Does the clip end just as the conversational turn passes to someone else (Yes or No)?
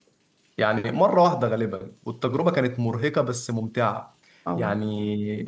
No